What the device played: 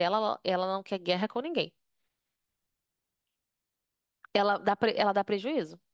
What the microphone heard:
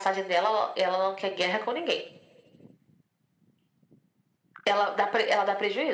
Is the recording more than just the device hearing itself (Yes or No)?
No